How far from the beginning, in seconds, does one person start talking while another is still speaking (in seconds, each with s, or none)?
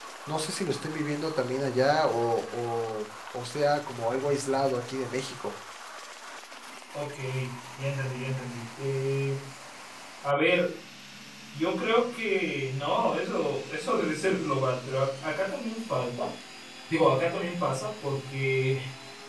none